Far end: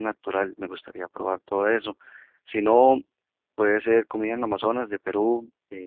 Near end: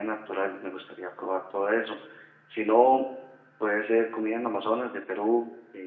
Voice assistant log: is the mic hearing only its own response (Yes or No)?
Yes